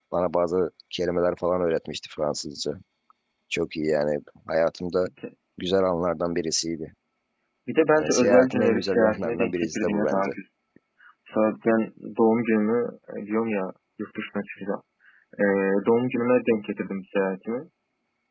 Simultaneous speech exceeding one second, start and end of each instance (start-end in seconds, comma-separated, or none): 8.0-10.3